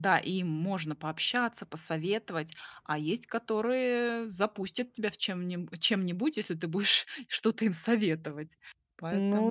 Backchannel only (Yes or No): No